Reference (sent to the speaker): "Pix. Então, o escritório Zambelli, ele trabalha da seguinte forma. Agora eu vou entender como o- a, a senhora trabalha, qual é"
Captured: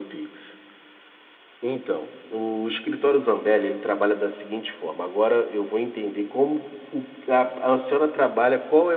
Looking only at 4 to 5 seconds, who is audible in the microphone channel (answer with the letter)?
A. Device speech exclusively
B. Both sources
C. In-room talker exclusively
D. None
A